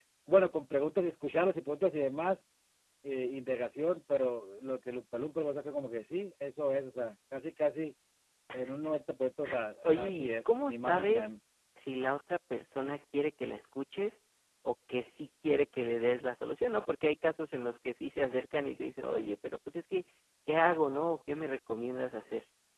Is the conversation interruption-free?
No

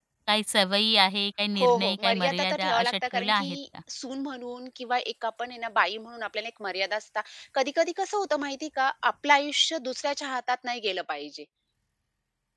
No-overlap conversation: No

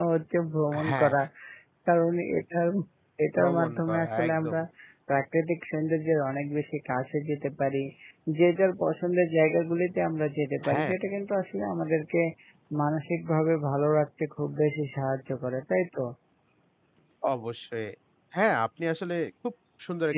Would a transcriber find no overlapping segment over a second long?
No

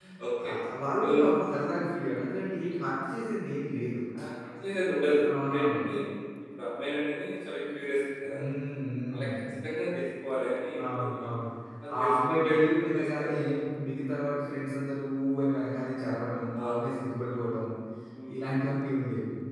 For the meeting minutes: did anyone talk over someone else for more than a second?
Yes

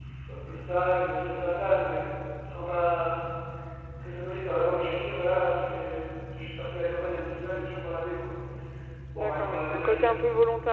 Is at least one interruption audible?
Yes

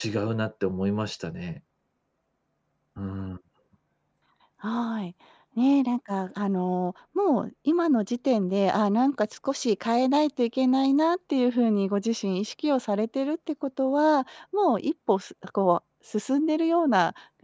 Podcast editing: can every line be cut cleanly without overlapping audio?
Yes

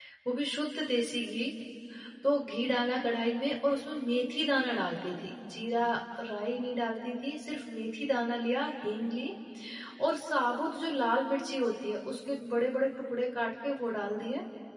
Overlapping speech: No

